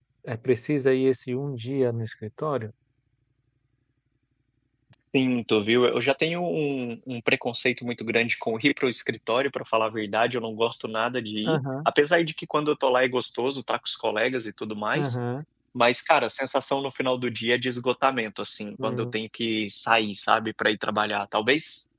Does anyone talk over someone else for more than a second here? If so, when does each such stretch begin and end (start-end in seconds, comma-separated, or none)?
none